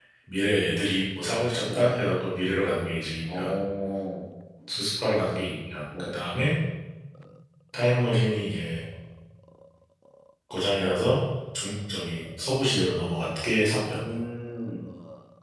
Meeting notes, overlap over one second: none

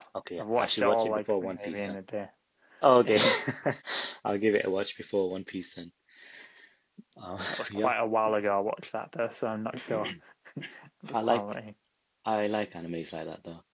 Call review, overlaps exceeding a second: present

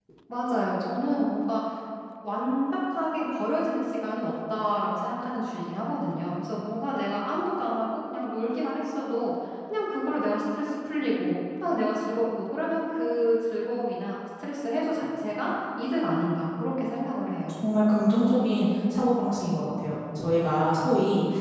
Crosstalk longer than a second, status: none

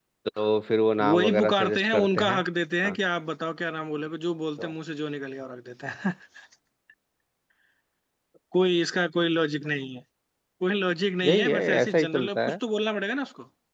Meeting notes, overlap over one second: present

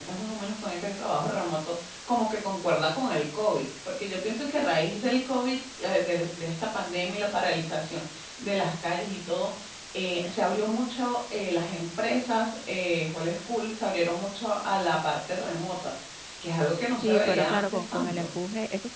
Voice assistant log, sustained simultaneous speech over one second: present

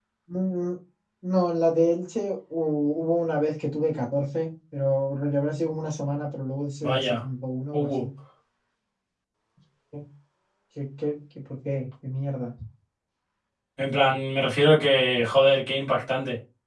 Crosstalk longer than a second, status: none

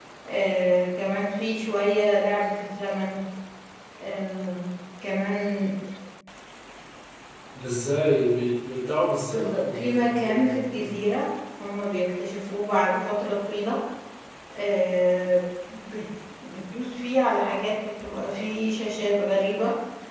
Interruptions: present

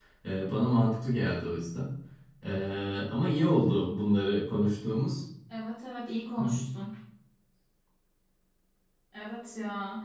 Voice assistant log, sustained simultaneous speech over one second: none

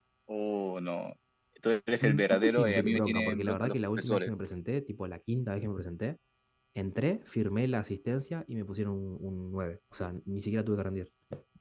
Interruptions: present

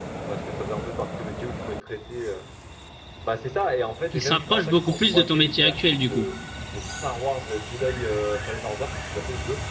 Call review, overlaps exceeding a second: present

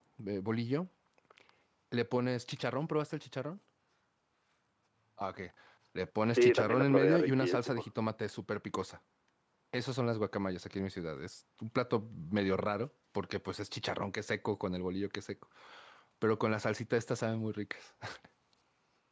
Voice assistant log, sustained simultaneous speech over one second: present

